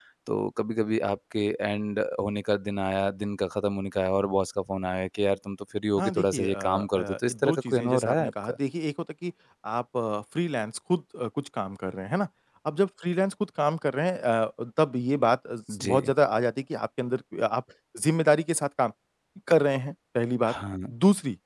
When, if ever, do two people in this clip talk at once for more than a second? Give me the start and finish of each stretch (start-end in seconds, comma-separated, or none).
6.0-8.5